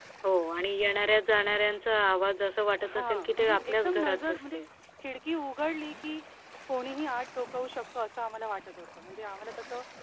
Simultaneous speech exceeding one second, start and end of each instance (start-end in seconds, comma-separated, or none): 2.9-4.6